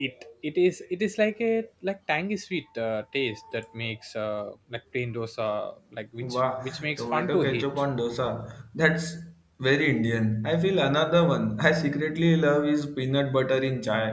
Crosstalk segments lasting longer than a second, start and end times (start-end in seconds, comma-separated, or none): 6.2-7.8